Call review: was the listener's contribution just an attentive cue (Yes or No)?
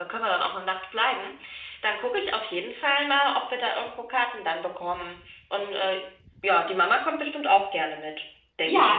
No